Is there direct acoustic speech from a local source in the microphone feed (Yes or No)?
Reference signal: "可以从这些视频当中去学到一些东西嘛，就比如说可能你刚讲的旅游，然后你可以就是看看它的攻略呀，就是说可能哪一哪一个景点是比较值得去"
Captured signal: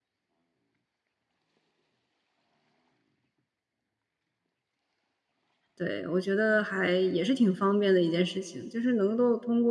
Yes